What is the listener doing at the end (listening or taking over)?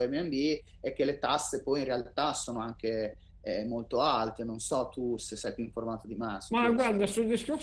taking over